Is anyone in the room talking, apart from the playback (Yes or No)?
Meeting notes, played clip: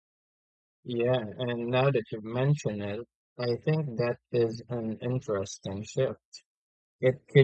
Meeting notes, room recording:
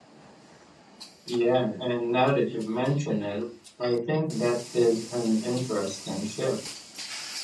No